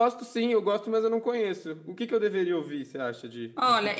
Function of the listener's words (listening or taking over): taking over